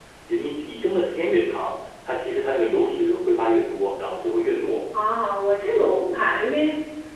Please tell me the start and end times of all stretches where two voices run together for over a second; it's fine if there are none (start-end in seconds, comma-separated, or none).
none